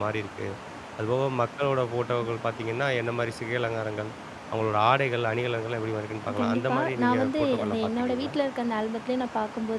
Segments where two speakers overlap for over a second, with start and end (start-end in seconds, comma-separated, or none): 6.4-8.3